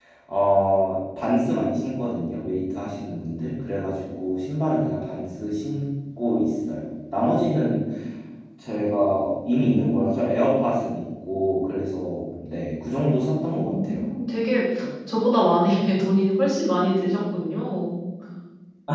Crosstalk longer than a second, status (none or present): none